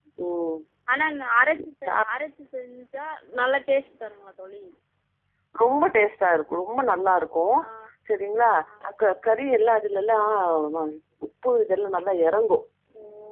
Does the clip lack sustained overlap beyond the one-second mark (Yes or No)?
Yes